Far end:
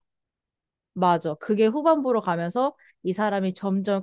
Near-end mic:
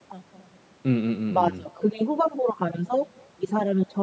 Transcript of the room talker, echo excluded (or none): 음음음음